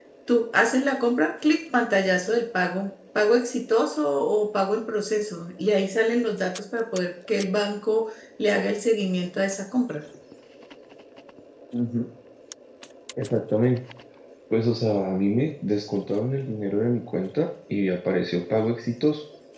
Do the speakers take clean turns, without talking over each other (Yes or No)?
Yes